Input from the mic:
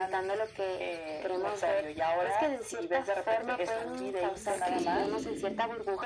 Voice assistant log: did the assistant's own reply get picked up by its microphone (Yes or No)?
Yes